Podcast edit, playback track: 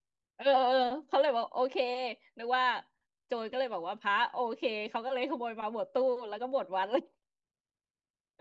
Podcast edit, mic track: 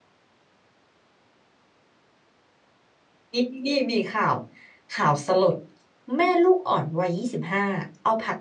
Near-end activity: present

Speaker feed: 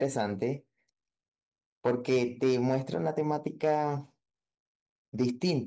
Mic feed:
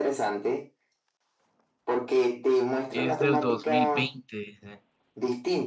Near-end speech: present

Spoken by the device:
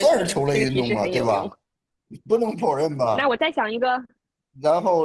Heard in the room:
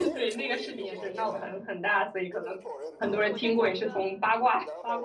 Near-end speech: present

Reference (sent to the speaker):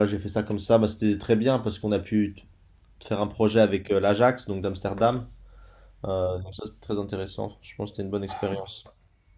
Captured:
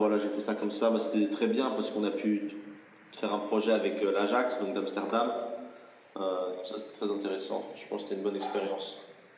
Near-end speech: none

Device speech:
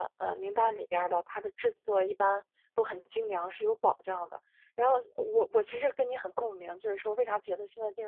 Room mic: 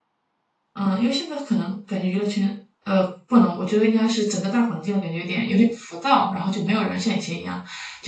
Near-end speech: present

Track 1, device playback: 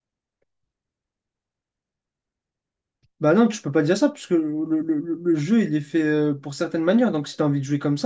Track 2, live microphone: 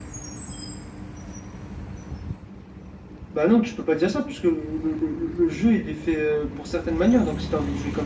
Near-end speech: none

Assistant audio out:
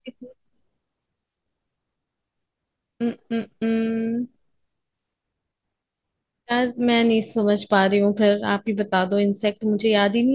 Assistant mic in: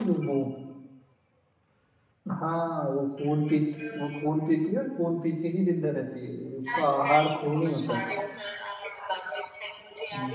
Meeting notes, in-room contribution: present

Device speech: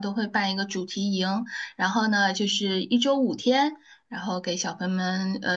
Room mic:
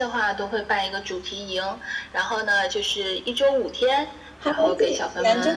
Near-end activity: present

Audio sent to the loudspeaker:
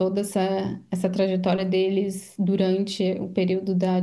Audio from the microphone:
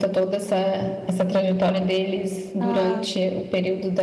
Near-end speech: present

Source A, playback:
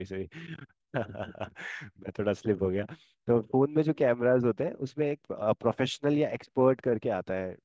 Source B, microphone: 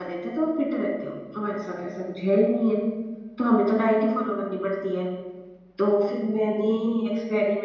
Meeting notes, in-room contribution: present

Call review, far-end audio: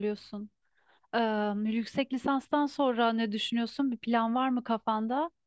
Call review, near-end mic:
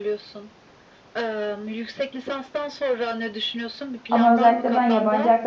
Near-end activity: present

